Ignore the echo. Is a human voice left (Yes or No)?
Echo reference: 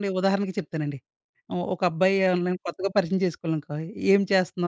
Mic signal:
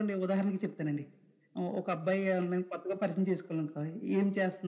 No